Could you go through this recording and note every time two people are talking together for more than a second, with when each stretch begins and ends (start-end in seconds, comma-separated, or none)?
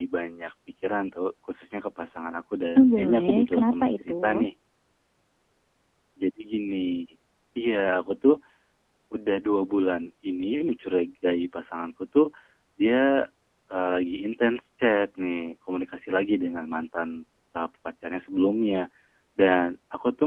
2.8-4.5